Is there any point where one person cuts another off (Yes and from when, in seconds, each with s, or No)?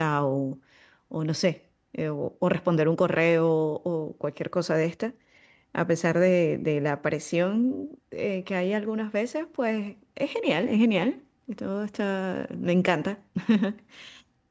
No